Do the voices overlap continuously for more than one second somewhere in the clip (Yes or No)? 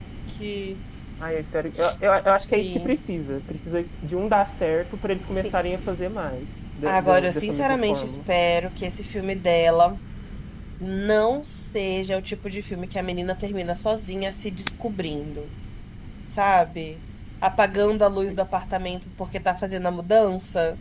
Yes